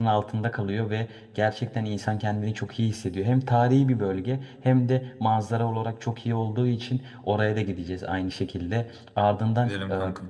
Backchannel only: Yes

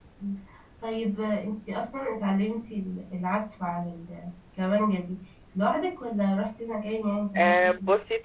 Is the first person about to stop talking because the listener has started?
Yes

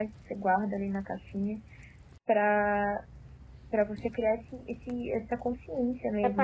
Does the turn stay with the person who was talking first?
No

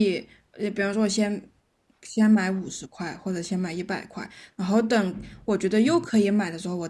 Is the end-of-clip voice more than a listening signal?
No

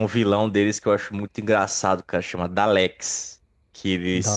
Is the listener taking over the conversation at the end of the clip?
No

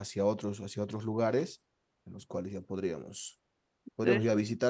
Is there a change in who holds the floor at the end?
No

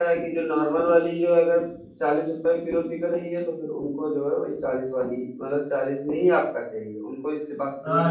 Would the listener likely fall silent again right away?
No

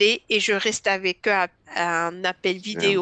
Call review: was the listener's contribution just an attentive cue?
Yes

